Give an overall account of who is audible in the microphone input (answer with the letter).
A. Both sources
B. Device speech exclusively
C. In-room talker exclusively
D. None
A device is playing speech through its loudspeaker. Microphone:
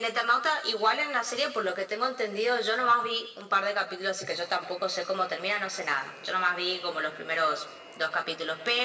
B